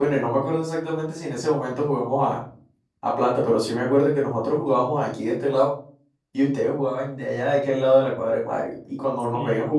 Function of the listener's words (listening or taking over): listening